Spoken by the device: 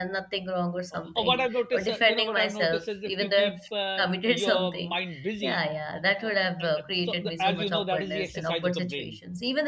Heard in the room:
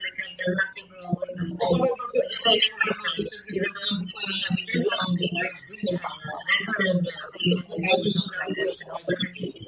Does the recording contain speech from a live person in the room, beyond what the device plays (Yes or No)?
No